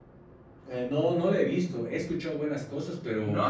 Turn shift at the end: Yes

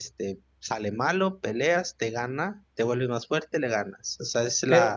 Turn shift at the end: Yes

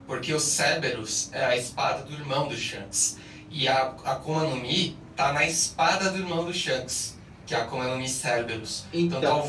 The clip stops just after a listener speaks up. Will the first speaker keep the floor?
Yes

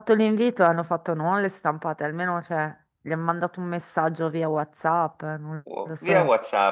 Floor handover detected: Yes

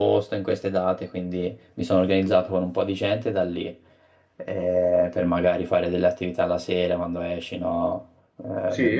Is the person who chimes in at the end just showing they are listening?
Yes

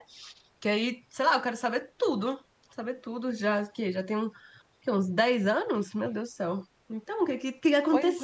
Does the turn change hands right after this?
Yes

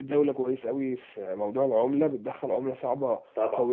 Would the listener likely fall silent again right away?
Yes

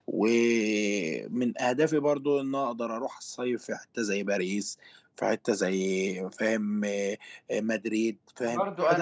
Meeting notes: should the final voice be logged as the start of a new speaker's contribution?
Yes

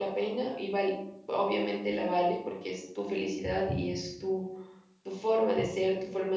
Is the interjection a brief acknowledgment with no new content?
Yes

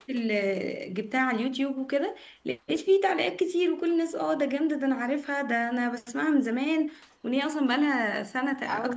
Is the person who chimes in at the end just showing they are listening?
No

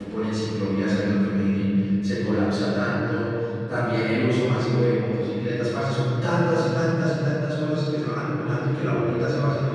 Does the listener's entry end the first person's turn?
No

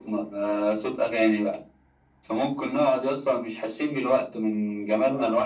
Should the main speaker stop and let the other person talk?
No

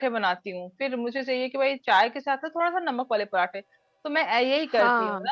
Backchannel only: Yes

